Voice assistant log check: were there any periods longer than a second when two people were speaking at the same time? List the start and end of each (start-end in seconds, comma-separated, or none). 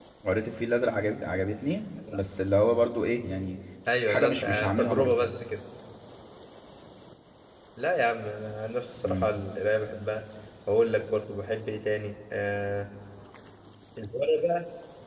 4.1-5.3